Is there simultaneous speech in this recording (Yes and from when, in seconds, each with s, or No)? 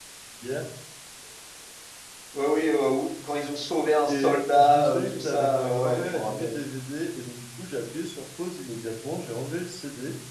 Yes, from 4.1 s